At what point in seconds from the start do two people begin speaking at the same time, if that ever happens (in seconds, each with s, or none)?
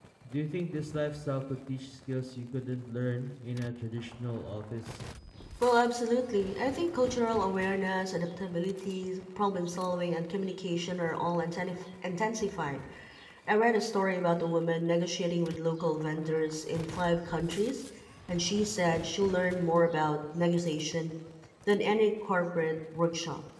none